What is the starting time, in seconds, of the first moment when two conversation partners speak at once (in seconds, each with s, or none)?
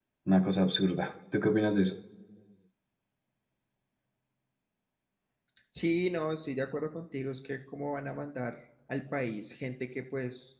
none